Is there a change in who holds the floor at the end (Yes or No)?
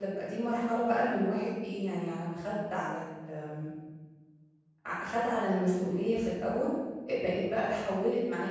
No